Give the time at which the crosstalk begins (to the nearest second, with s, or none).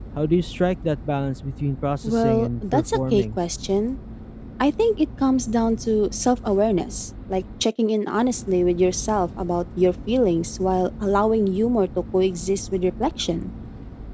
2 s